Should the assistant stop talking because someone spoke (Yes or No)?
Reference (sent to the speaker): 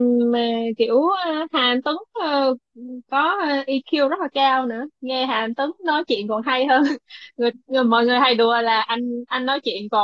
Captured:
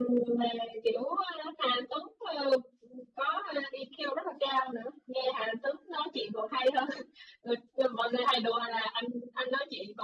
No